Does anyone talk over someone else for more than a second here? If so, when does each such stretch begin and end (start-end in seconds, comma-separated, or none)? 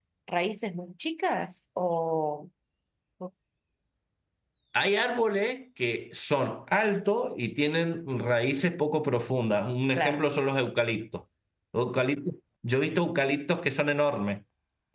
none